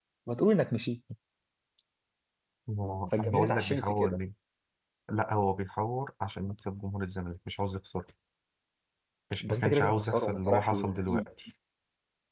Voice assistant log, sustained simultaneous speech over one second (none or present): present